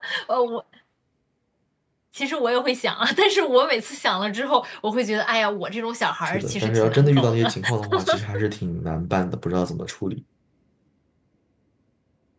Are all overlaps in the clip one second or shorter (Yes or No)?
No